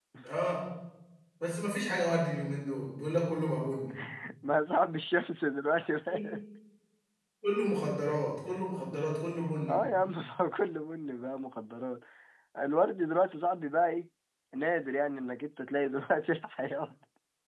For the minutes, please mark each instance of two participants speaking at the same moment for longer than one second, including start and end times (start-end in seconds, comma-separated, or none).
none